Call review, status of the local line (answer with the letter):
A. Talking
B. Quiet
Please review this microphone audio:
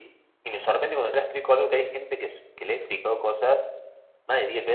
B